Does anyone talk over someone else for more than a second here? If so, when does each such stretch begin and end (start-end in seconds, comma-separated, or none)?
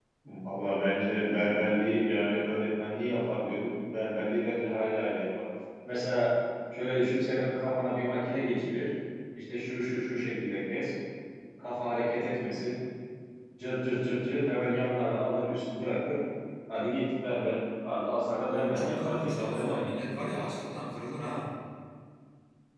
18.5-19.8